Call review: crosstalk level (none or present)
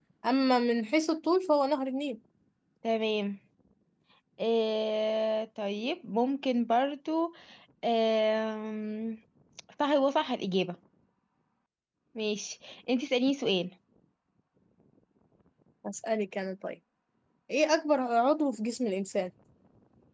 none